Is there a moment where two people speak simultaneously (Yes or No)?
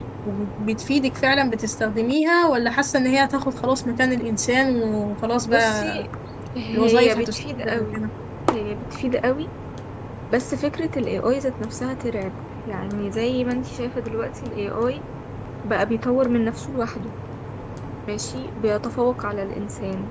Yes